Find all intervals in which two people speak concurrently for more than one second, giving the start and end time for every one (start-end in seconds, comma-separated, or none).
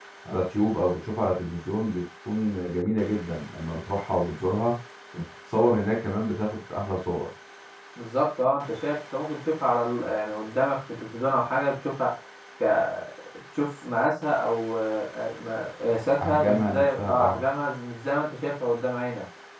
16.2-17.4